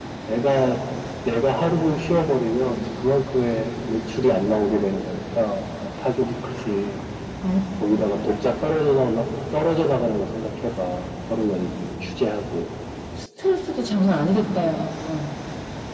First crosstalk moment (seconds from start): none

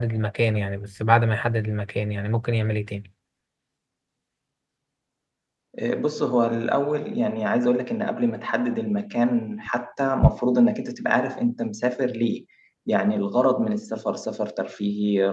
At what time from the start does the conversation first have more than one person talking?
none

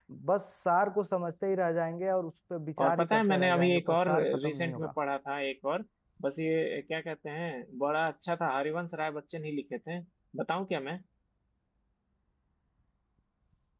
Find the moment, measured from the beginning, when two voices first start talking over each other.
2.8 s

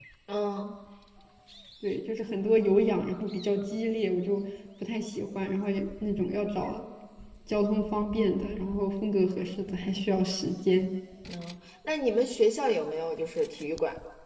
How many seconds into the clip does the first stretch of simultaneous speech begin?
none

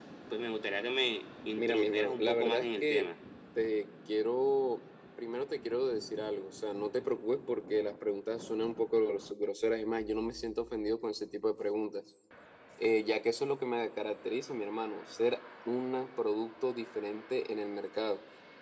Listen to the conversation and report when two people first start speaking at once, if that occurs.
1.6 s

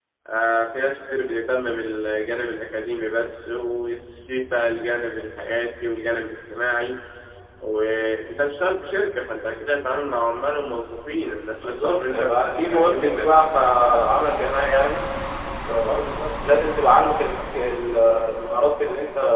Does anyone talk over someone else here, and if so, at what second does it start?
11.6 s

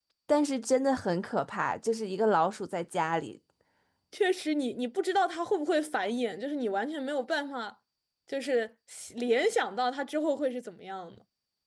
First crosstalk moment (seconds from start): none

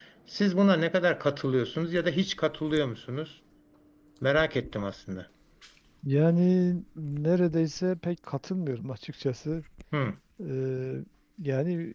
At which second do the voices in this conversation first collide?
none

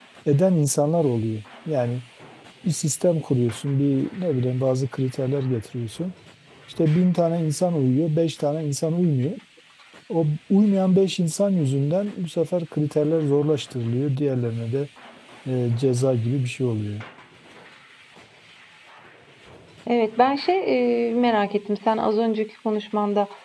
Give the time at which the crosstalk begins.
none

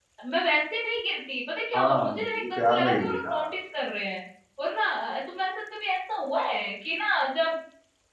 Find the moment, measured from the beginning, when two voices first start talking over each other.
1.7 s

